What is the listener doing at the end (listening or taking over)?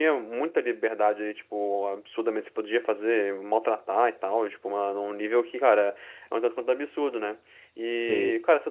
listening